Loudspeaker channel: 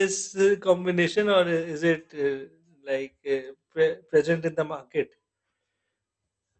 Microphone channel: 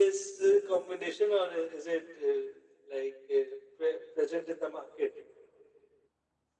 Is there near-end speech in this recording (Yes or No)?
No